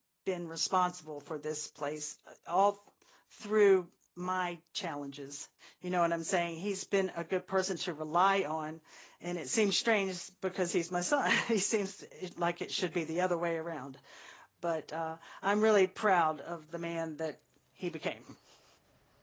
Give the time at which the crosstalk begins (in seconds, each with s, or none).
none